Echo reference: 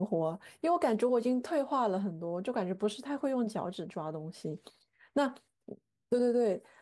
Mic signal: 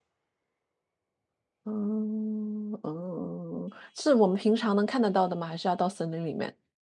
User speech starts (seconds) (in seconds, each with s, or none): 1.7 s